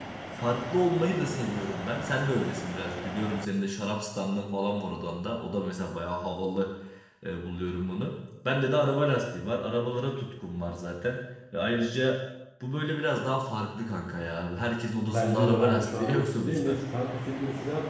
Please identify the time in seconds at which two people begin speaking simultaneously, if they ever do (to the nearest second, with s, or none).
15 s